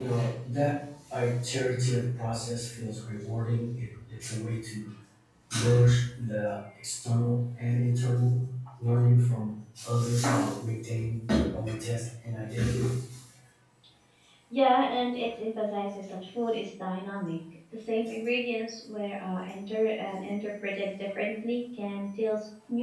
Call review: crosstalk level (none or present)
none